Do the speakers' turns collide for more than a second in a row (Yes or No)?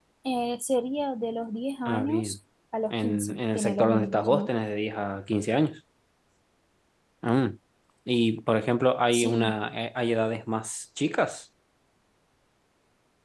Yes